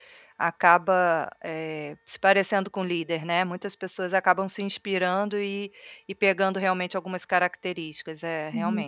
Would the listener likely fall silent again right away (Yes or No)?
No